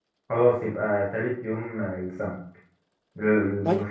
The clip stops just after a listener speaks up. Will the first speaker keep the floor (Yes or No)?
Yes